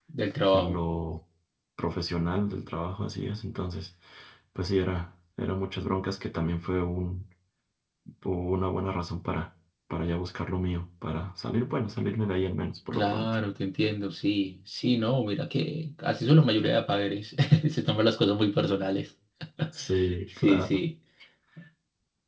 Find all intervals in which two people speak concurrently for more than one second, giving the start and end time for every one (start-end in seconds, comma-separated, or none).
none